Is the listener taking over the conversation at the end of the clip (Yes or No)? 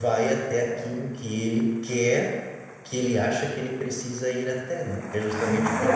Yes